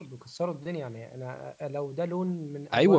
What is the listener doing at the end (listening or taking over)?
taking over